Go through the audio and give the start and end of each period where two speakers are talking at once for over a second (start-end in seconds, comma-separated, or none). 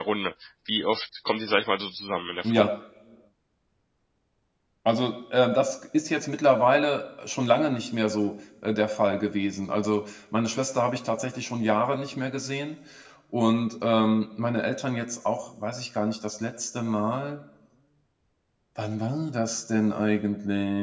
none